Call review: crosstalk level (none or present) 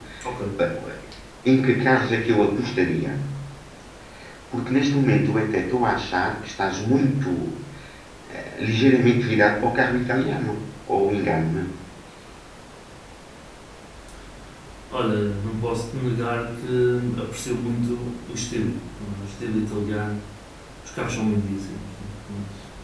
none